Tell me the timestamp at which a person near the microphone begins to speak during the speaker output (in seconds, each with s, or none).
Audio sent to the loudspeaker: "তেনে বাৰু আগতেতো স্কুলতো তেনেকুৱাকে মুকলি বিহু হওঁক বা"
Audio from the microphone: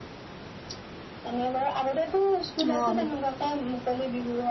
2.6 s